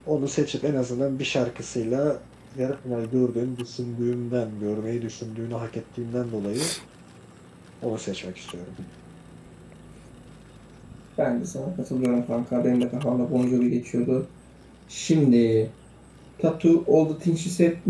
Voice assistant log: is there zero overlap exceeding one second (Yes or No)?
Yes